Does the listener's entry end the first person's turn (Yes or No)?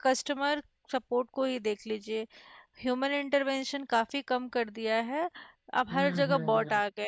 No